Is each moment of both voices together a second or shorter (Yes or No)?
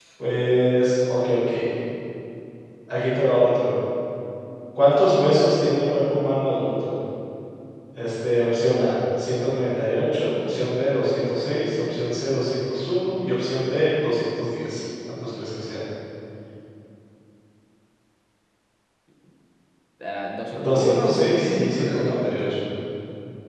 No